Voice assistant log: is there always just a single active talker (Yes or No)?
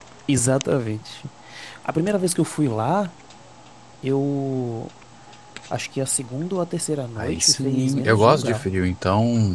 No